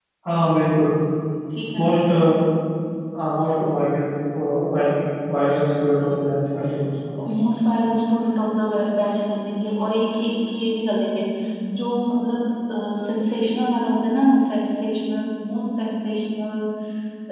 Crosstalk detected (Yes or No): No